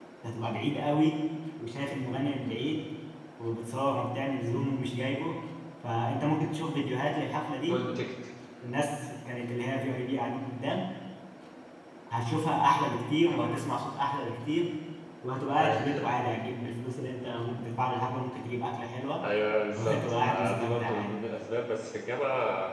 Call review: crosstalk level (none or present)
present